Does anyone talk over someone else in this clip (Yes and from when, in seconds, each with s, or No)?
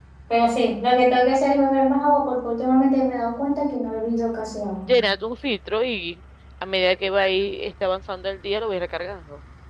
No